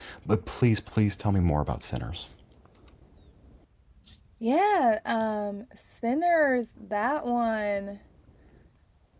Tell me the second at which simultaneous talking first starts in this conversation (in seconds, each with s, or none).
none